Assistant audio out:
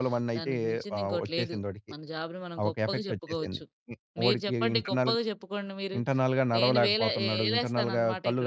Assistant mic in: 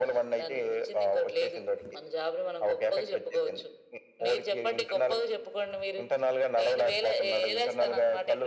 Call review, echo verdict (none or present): present